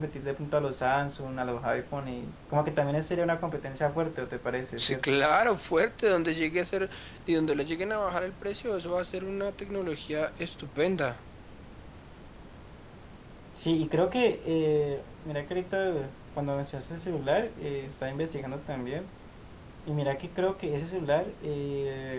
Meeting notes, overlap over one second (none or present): none